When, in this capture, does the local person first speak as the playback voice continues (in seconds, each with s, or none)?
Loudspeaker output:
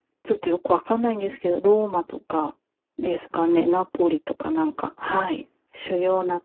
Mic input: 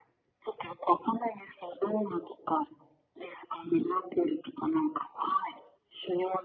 none